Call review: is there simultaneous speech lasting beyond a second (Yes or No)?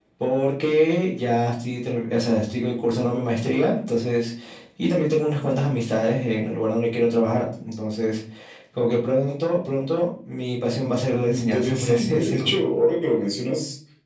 Yes